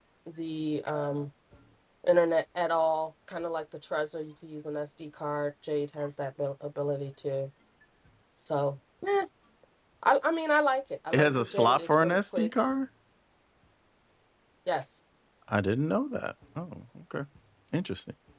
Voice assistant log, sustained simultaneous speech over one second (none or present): present